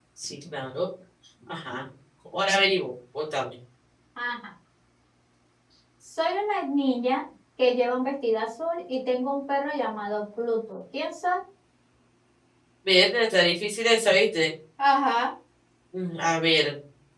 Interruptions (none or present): none